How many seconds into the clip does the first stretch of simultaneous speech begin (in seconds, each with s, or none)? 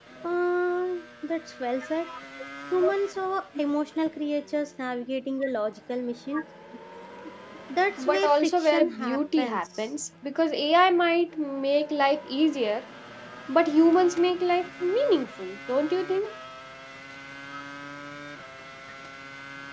8.0 s